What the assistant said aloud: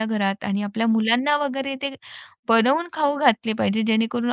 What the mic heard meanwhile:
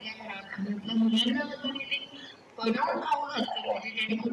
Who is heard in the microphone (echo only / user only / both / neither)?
echo only